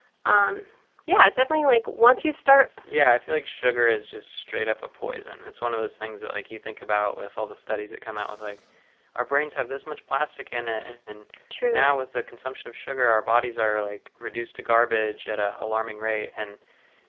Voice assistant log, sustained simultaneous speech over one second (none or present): none